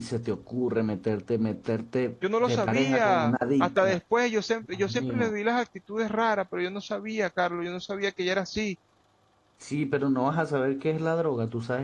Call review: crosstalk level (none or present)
present